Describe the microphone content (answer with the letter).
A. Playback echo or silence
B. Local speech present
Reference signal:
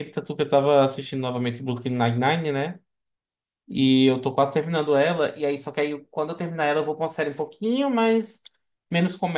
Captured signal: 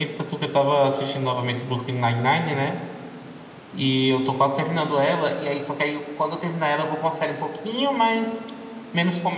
A